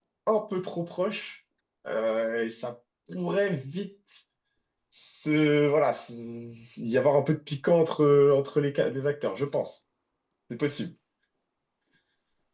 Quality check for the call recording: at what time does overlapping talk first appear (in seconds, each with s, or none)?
none